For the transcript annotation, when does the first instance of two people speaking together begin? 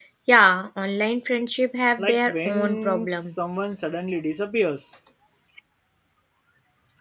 2.0 s

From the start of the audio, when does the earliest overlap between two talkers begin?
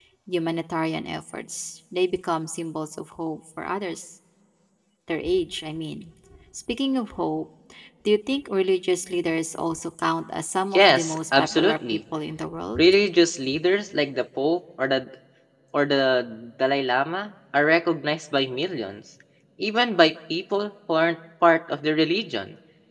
10.8 s

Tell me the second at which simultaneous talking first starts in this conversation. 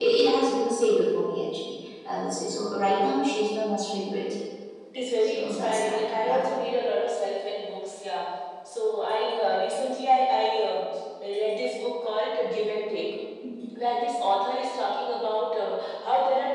5.2 s

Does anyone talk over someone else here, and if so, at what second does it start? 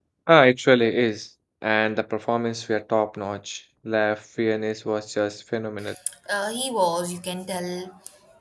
none

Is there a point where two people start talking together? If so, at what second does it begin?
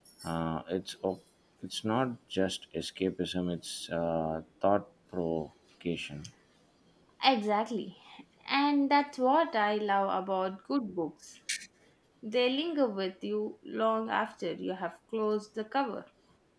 none

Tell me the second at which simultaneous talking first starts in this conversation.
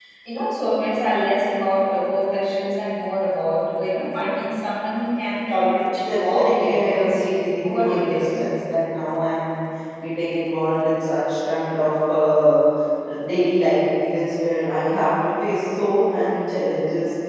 5.9 s

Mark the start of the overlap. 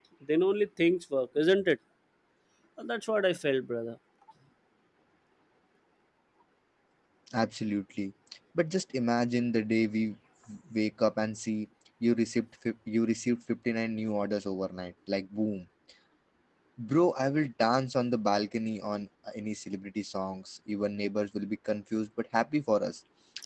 none

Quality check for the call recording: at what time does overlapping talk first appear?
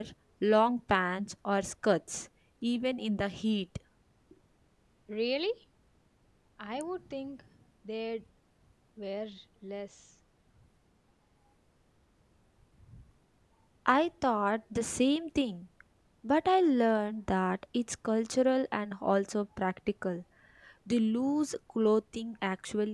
none

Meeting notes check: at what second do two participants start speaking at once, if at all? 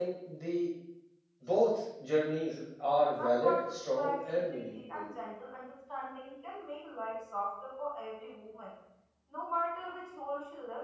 3.2 s

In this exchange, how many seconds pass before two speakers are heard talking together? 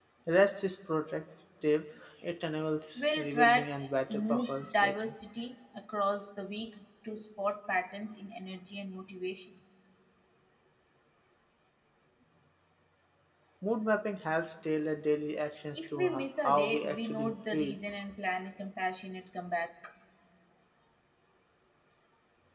3.0 s

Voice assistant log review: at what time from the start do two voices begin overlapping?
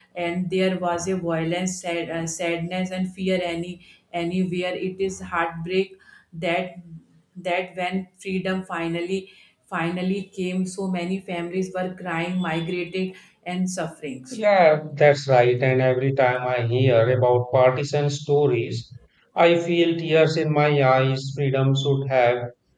none

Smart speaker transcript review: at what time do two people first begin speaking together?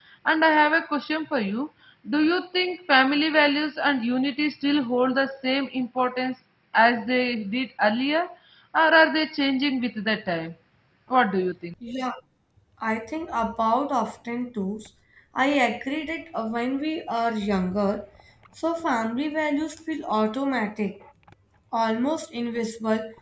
none

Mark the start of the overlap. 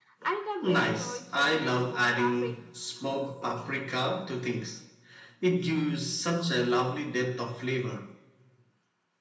0.6 s

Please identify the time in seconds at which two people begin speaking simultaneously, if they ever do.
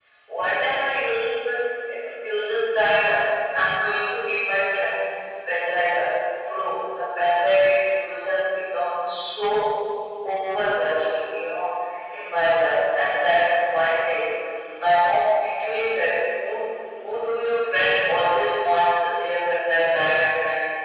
none

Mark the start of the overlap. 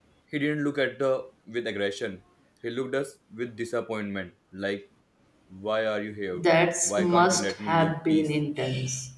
6.9 s

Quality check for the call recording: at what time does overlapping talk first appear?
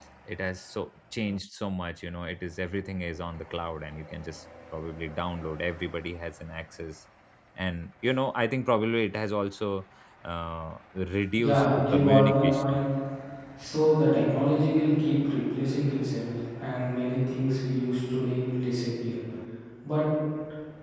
11.4 s

